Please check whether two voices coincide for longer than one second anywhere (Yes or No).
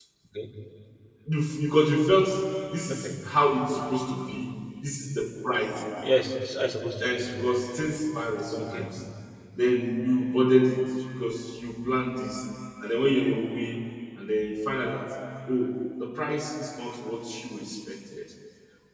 No